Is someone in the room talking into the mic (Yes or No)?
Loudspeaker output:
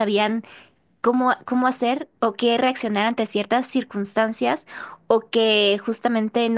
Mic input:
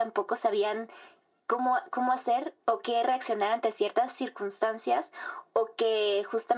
No